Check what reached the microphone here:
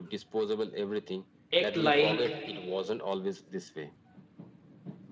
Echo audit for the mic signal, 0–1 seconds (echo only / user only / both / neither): echo only